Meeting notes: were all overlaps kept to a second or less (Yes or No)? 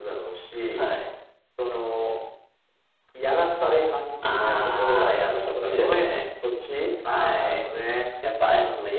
No